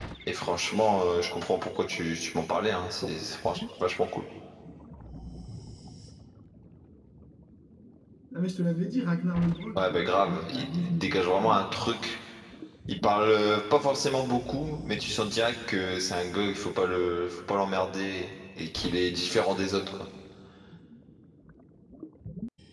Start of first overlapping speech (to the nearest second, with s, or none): 10 s